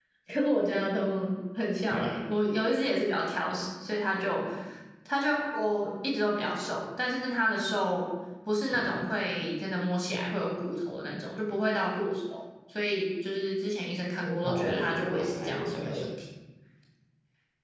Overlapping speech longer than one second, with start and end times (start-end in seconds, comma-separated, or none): 14.4-16.1